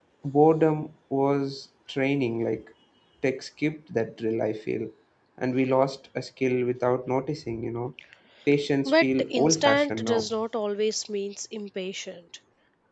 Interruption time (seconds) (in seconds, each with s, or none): 8.8 s